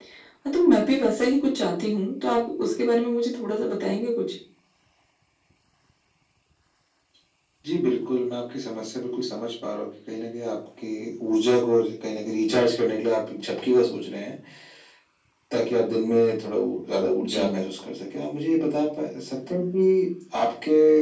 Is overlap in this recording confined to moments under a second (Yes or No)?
Yes